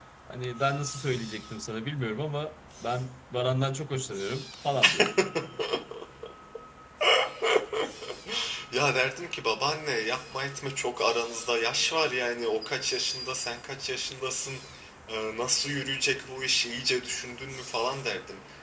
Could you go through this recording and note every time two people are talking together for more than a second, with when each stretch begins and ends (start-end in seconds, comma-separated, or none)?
none